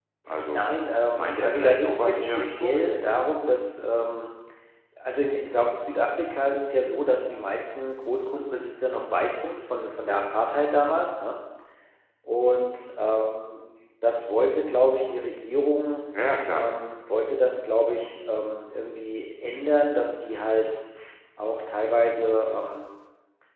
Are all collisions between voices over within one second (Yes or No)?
No